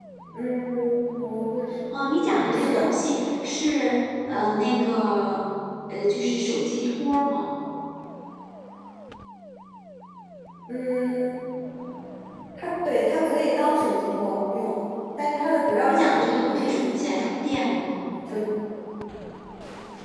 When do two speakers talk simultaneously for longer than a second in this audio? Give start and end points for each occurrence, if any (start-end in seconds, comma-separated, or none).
15.9-17.2